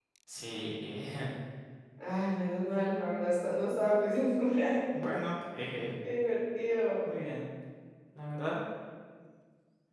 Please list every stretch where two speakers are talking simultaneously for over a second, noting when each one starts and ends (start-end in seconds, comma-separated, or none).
none